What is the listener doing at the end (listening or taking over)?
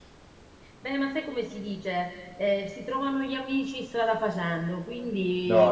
listening